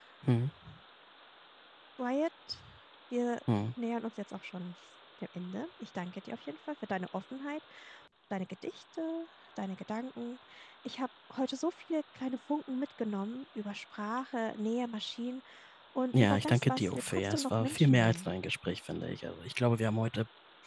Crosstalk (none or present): present